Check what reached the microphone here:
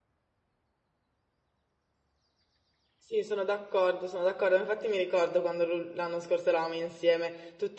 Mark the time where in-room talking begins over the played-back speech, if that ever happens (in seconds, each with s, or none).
3.0 s